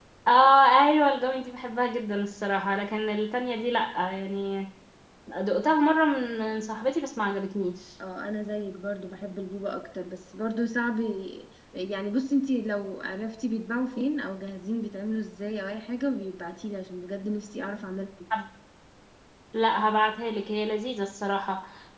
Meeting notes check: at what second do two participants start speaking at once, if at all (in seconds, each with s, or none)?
none